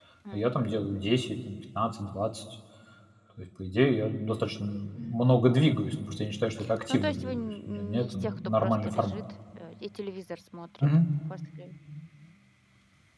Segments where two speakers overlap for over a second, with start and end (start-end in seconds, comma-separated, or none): 6.9-9.2